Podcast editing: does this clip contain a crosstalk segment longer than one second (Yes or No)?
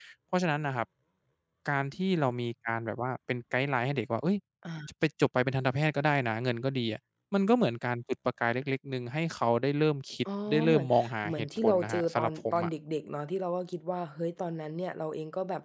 Yes